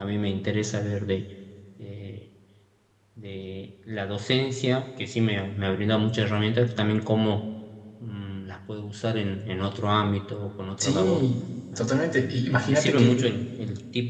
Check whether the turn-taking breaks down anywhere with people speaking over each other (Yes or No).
Yes